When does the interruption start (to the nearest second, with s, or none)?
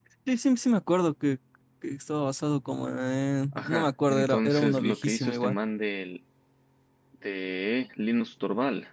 4 s